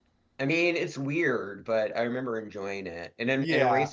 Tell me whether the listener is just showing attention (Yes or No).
Yes